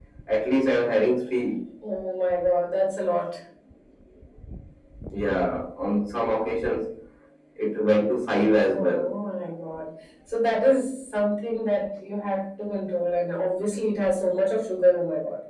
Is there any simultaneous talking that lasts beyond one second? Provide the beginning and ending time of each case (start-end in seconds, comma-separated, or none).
none